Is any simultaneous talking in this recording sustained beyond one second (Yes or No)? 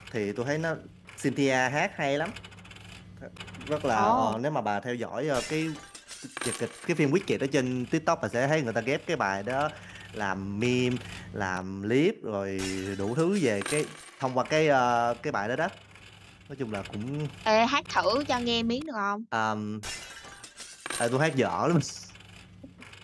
No